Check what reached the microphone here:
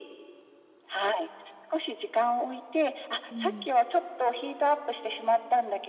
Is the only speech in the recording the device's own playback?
No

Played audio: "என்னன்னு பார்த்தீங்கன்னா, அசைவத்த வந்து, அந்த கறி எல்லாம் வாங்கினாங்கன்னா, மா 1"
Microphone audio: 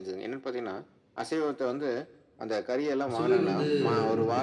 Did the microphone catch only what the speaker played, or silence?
No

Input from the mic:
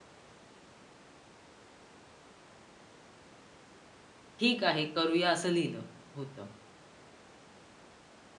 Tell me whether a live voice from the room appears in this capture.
Yes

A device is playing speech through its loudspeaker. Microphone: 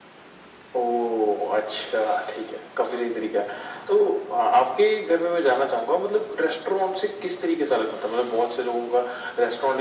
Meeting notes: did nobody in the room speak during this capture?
Yes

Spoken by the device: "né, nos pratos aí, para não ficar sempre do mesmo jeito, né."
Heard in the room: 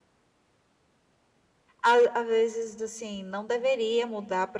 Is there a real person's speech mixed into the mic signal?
Yes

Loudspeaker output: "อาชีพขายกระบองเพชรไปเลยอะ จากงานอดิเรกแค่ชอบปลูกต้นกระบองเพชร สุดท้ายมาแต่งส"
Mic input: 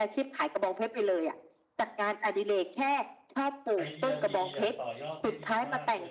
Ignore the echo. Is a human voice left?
Yes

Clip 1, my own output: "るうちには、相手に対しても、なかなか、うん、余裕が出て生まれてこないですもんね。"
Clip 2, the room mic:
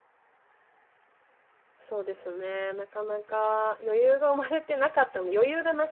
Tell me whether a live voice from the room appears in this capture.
Yes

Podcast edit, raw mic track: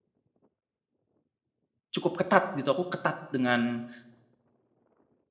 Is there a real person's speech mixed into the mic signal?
Yes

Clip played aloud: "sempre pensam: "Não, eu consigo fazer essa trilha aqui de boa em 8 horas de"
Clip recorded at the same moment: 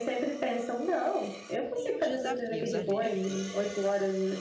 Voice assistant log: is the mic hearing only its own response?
No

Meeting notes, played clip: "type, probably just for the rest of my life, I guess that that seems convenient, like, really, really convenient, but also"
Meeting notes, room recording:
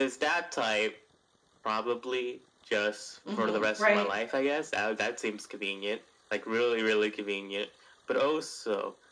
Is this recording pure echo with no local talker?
No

